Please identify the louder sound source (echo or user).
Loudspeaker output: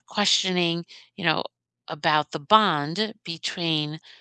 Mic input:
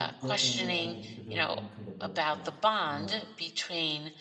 echo